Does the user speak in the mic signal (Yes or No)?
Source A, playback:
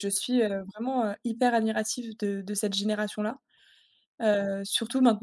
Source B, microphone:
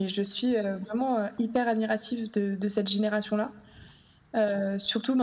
No